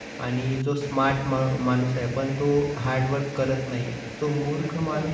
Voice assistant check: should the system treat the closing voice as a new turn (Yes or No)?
No